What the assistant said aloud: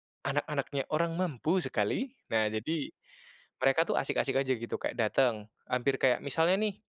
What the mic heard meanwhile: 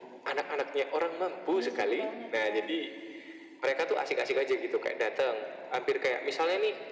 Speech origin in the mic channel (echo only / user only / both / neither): both